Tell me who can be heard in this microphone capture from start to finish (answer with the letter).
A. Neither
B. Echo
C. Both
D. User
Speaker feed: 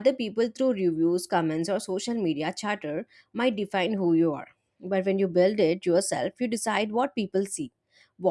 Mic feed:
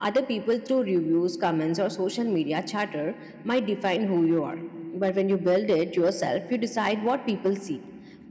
B